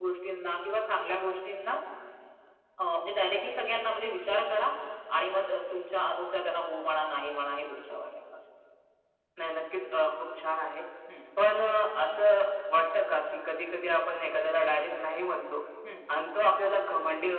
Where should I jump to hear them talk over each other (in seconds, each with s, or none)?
none